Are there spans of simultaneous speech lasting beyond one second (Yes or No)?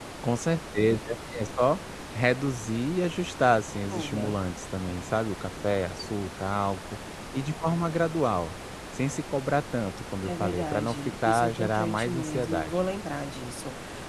Yes